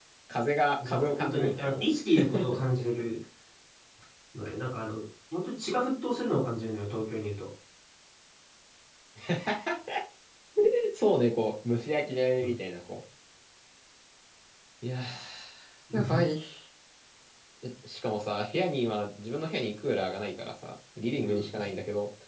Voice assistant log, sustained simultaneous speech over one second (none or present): present